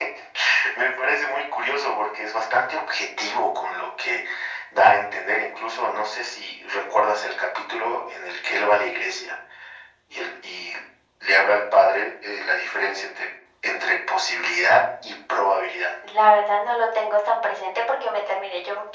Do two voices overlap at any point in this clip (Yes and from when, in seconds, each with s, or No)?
No